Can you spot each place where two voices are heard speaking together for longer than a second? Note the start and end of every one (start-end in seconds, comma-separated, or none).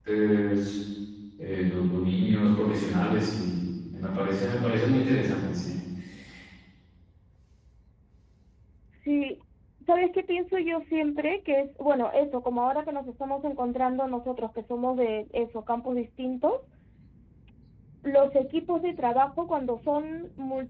none